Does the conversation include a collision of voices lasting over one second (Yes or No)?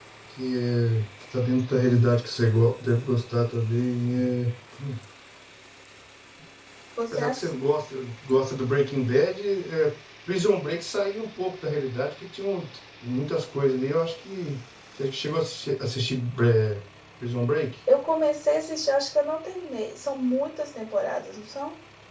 No